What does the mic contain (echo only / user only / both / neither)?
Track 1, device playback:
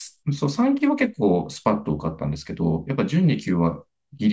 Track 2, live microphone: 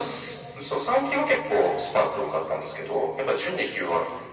echo only